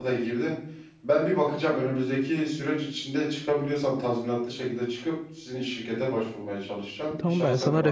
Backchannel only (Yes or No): No